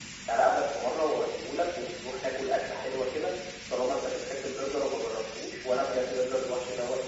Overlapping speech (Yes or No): No